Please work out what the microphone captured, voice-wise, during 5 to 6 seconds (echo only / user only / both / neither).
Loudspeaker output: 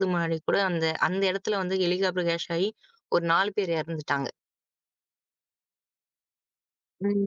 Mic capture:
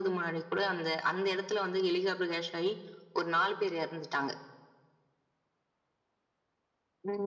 neither